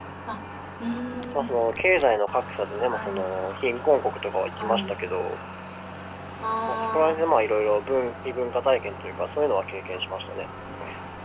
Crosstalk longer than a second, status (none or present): none